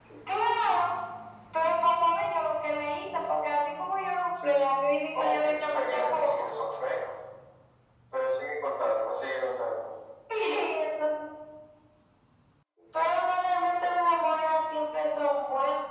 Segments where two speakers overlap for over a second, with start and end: 5.1-6.4

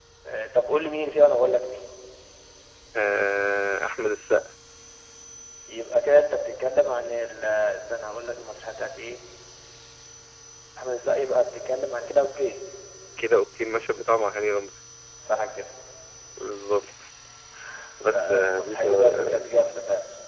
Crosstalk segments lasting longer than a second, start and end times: 18.1-19.4

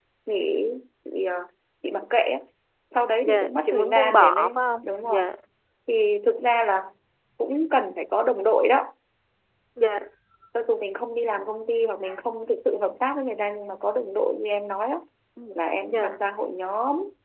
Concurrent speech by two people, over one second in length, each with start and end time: 3.2-5.2

